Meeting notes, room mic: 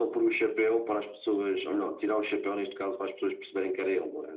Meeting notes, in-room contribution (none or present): none